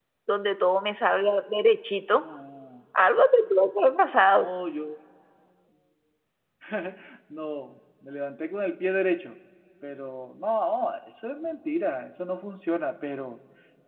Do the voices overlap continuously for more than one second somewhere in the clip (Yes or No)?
No